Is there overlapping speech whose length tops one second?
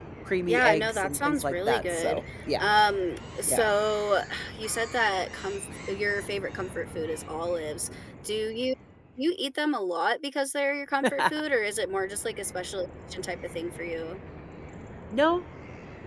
Yes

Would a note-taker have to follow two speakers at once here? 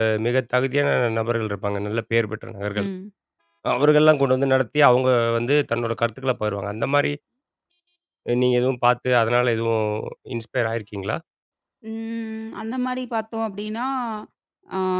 No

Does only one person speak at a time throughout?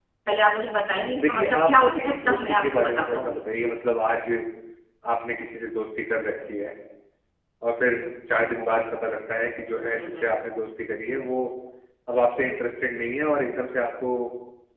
No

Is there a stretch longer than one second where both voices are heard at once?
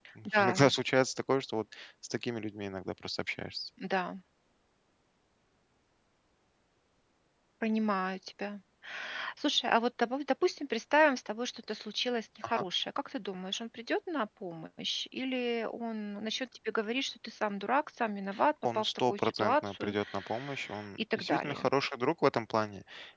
Yes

